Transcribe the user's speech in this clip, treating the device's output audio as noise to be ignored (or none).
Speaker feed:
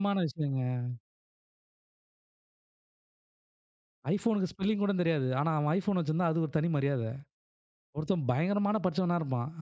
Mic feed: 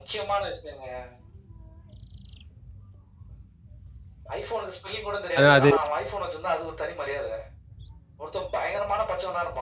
அதா அது.